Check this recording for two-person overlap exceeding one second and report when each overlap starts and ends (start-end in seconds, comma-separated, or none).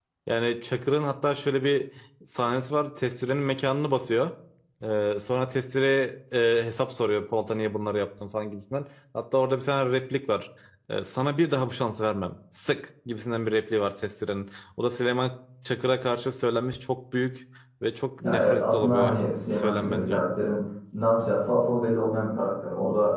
18.2-20.2